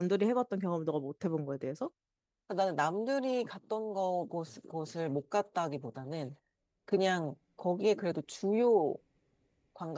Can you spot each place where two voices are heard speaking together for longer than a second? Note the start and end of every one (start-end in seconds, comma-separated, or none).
none